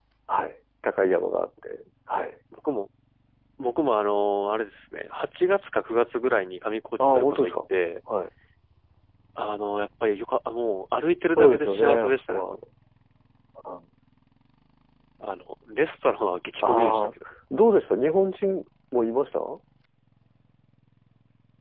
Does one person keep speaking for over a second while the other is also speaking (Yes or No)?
Yes